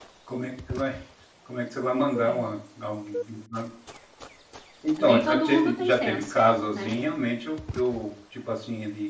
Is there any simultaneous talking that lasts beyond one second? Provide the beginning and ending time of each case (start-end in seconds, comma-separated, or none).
5.0-6.4